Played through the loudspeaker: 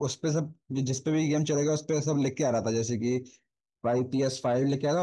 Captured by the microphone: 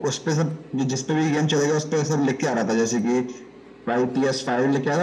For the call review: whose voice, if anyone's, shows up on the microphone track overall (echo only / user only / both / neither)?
echo only